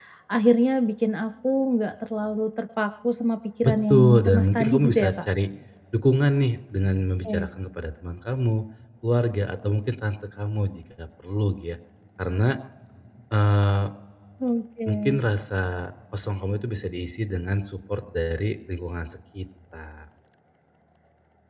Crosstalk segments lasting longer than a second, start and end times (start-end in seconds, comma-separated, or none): 3.6-5.1